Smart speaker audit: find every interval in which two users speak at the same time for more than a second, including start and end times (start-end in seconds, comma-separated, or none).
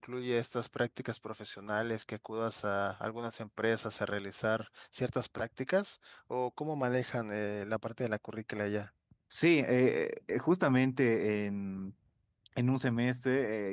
none